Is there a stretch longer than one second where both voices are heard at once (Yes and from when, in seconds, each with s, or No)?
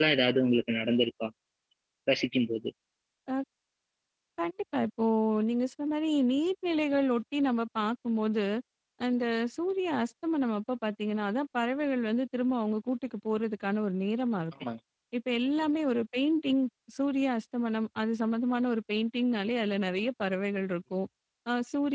No